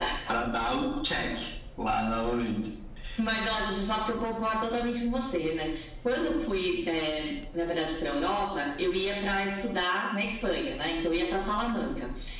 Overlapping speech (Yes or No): No